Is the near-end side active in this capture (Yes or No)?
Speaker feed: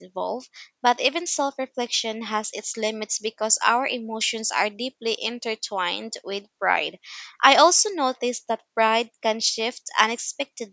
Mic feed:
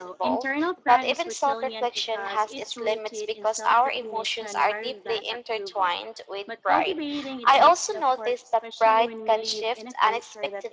Yes